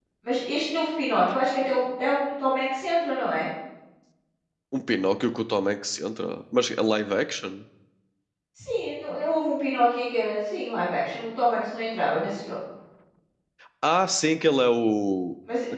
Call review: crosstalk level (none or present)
none